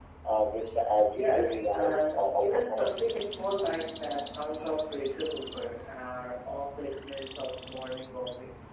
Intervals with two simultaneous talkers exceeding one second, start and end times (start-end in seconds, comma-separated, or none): 1.1-2.9